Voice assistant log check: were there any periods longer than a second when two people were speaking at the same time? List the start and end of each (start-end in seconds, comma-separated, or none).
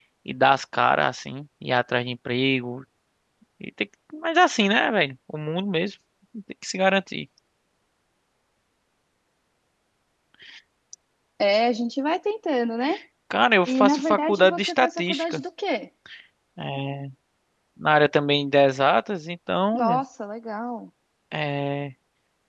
13.7-15.4